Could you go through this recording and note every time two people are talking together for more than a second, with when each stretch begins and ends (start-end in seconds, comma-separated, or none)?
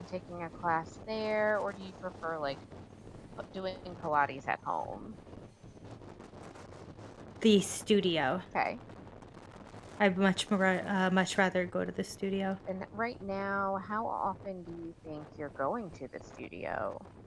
none